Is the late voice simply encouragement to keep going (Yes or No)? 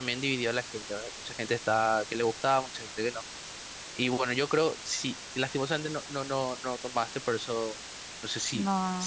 Yes